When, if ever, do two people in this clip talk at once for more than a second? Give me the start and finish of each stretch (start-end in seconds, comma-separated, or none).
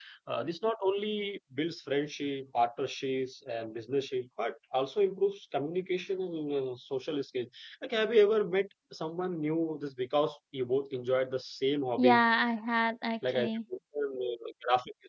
none